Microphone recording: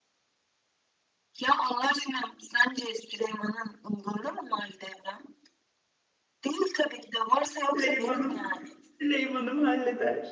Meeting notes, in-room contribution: present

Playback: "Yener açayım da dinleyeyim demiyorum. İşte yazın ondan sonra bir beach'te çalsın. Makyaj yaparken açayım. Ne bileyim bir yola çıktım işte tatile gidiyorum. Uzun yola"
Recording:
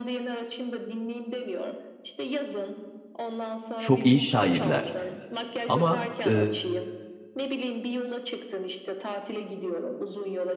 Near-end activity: present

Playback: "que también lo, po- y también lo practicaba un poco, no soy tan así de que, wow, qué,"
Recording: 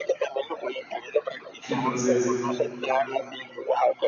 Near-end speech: present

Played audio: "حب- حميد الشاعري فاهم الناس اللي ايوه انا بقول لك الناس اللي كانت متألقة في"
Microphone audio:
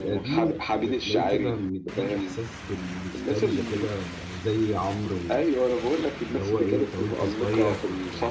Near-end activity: present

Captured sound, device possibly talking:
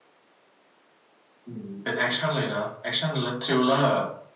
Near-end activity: none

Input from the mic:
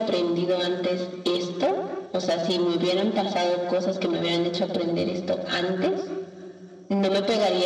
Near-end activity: none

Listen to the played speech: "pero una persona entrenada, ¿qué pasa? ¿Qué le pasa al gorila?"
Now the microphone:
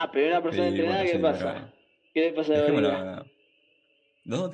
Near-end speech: present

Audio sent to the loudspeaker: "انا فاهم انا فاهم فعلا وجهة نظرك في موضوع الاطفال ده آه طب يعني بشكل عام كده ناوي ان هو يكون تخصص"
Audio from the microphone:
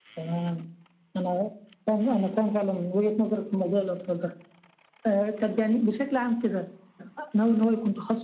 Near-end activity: none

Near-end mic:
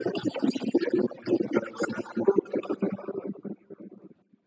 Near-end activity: none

